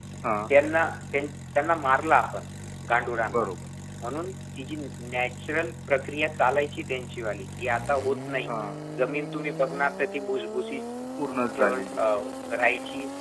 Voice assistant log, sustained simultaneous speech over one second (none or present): none